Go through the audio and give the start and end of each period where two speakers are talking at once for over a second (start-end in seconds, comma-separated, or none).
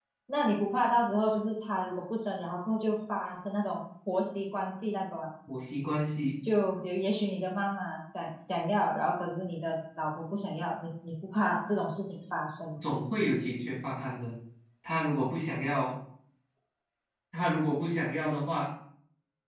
none